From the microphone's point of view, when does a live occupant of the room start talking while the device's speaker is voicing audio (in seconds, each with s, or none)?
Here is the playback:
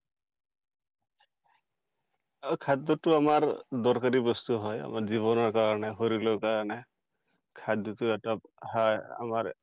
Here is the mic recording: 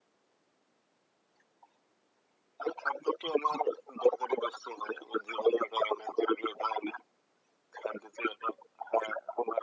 none